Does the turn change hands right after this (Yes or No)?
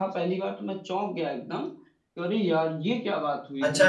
Yes